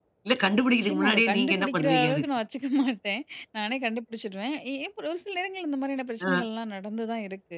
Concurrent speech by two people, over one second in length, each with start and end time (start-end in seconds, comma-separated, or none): 0.7-2.2